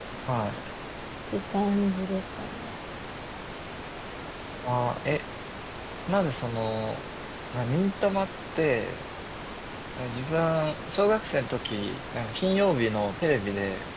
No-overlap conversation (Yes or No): Yes